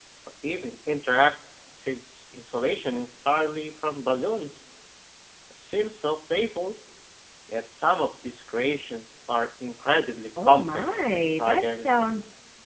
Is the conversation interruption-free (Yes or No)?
No